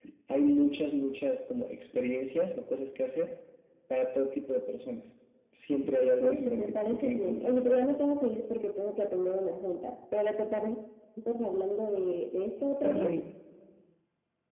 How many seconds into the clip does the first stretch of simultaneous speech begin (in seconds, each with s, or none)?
6.2 s